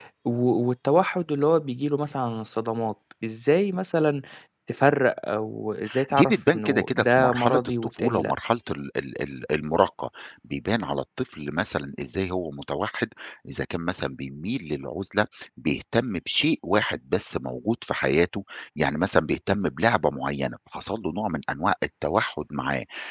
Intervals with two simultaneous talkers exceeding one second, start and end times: 6.1-8.3

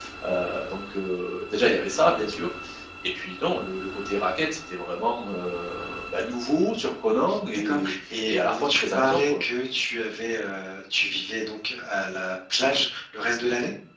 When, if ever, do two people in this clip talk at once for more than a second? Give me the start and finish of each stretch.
7.5-9.4

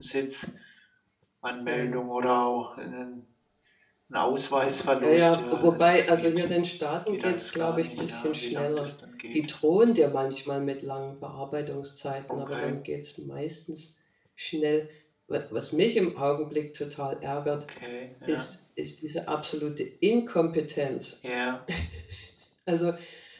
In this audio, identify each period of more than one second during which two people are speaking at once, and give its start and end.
5.0-6.5, 7.1-8.9

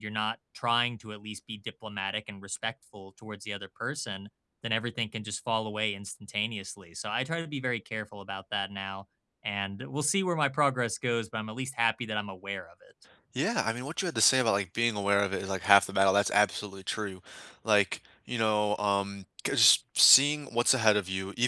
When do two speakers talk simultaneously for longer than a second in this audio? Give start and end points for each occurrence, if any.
none

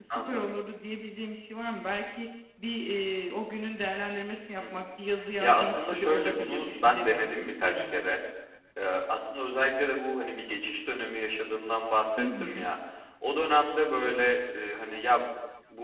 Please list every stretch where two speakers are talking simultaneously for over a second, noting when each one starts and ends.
5.4-8.1

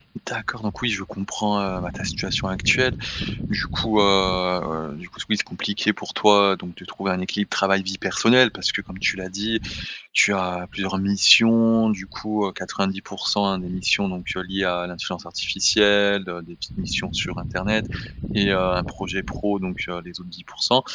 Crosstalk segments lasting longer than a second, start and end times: none

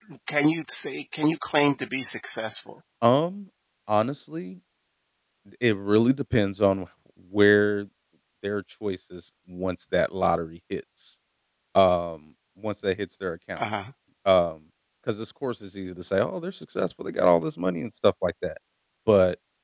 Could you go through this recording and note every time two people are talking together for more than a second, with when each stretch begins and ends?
none

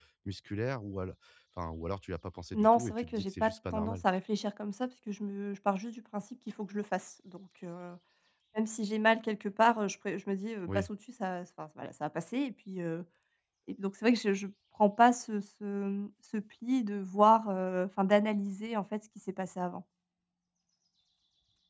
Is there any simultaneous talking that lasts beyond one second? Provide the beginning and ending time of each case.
2.5-4.0

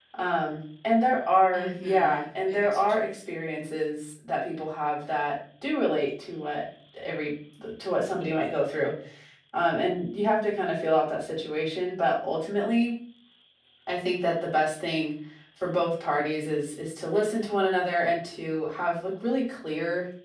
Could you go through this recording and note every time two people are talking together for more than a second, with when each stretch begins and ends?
1.5-3.0

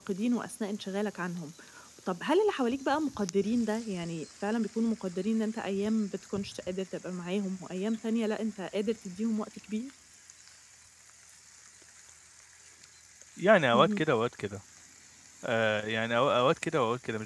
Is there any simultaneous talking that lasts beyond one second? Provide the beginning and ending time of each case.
none

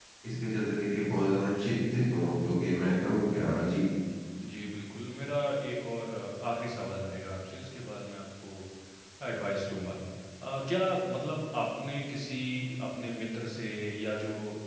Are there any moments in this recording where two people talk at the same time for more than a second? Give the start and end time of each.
none

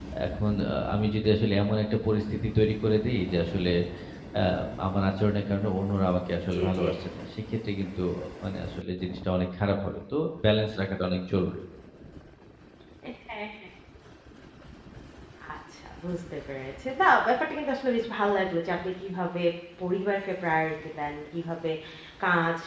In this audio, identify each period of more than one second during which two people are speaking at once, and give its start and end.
none

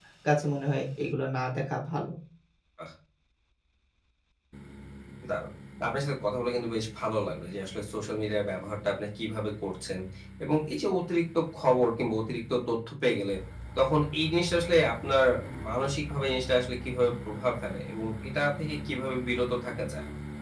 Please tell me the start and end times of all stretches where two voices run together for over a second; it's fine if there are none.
none

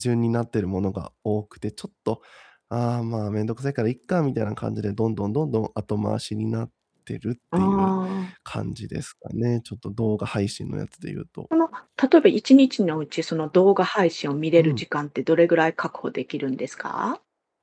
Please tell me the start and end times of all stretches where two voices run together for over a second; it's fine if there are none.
none

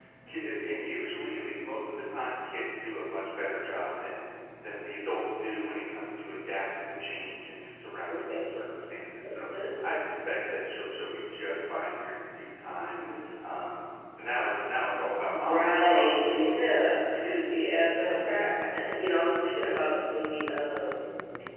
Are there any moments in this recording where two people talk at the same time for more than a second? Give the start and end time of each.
15.3-16.6

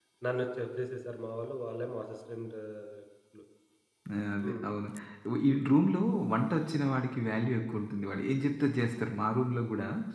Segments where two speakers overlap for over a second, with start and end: none

